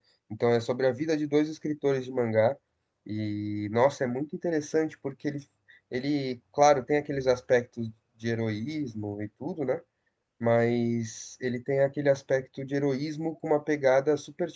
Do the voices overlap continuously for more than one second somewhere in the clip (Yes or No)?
No